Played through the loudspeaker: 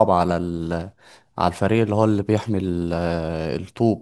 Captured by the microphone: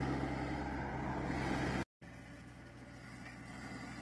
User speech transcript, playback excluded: none

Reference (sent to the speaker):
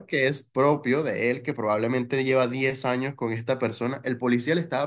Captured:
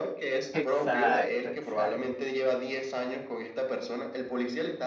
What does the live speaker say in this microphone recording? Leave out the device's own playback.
exacto, exacto.

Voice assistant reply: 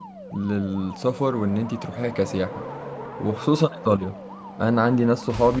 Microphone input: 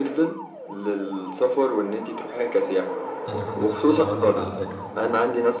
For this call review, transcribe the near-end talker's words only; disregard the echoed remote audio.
أنا كنت لسه هقولك على فكرة

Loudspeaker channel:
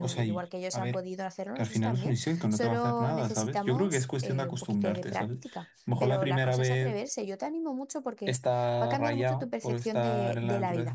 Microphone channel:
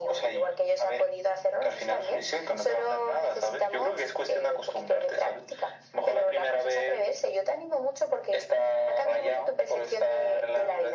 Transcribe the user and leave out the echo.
none

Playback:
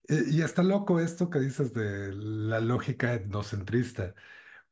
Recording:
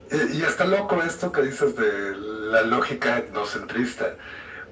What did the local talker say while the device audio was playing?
none

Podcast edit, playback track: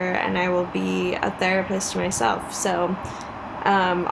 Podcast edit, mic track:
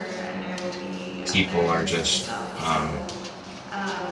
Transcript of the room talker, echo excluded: people are just um

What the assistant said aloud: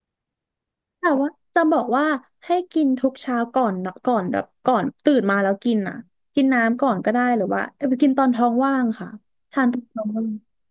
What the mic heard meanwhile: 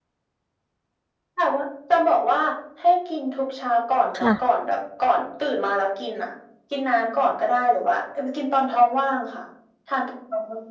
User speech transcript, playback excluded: ค่ะ

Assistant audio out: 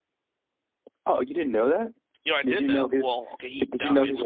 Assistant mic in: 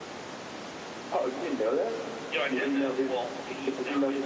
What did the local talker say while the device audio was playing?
none

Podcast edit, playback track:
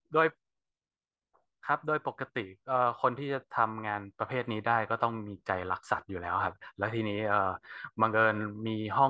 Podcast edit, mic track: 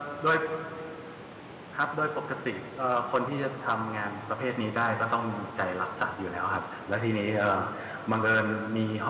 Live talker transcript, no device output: none

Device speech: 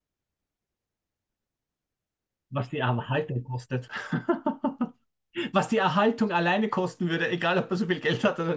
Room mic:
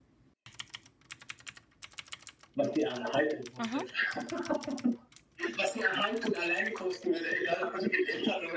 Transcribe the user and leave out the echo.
Mhm.

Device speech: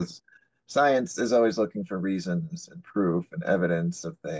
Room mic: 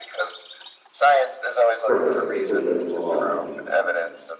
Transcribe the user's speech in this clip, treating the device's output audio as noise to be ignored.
purpose, like they can live on,

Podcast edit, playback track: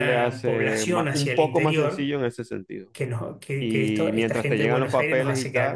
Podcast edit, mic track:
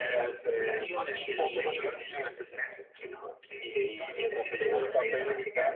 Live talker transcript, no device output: sí, sí, el, el- la-

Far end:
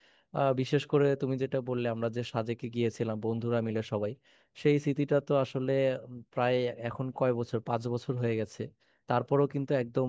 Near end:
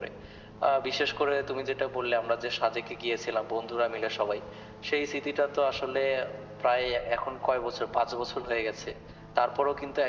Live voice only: none

